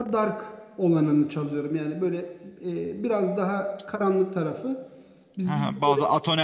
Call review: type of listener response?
taking over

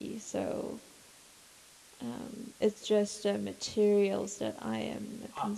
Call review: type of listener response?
taking over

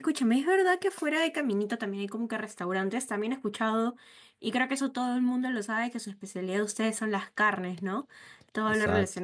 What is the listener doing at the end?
listening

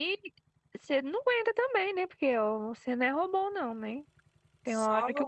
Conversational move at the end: listening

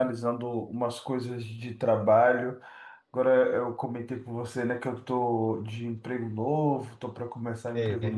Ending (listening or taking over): listening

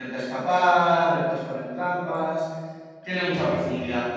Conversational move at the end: listening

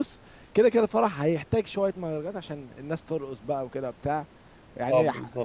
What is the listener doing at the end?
listening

